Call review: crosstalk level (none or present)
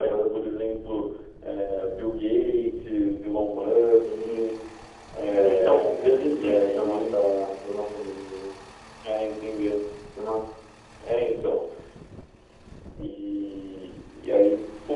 present